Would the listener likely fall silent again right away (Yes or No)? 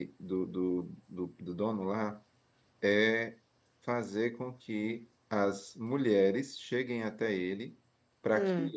Yes